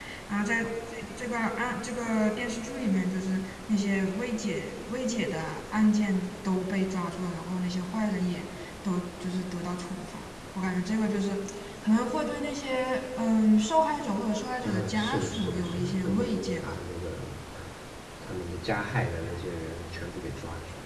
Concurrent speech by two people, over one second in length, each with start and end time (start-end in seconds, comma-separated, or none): 14.6-16.7